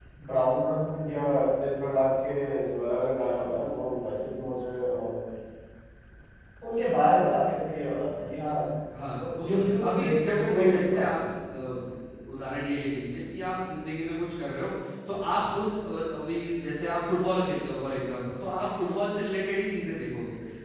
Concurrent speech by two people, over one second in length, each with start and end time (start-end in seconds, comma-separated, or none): 9.2-11.1